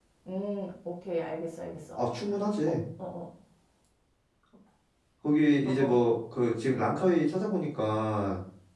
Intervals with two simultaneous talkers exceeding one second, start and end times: none

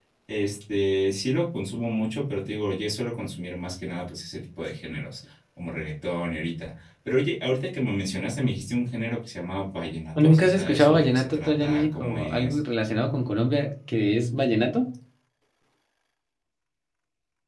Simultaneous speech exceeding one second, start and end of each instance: 10.2-12.6

